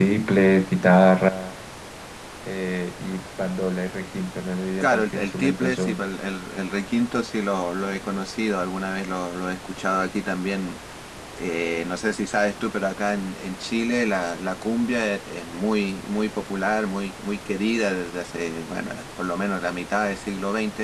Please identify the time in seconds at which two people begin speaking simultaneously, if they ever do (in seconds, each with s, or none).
4.8 s